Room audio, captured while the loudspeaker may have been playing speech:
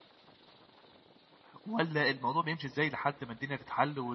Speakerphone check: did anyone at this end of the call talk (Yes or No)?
Yes